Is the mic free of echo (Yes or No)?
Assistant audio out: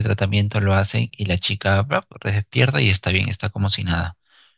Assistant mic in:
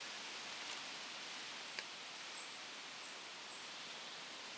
Yes